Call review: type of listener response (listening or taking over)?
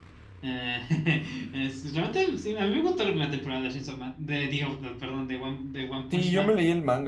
taking over